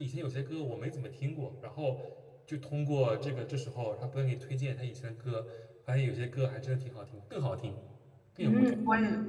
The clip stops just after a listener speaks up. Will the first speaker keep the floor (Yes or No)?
No